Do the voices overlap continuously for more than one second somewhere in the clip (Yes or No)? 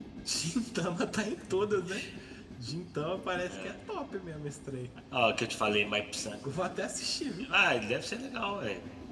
No